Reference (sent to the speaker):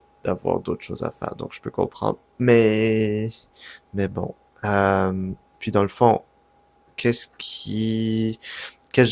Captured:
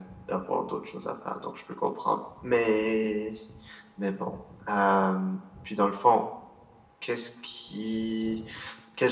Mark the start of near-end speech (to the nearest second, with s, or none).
none